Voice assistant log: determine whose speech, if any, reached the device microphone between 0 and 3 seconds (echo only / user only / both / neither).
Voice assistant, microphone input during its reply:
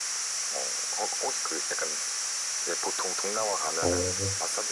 echo only